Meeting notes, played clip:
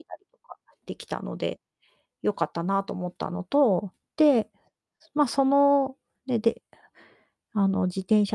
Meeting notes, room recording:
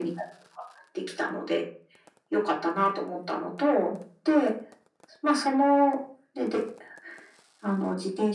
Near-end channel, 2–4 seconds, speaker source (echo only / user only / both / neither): echo only